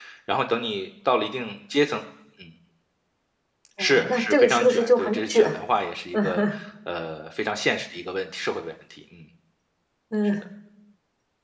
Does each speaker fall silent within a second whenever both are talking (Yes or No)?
No